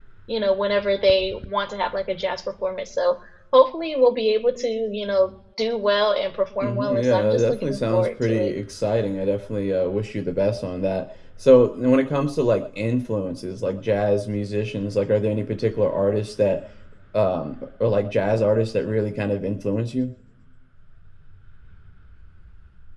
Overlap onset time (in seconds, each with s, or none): 6.6 s